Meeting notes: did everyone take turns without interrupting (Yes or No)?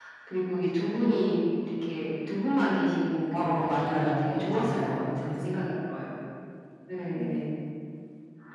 No